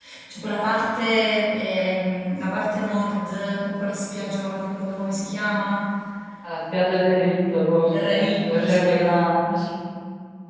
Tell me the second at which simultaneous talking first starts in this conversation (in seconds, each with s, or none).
7.8 s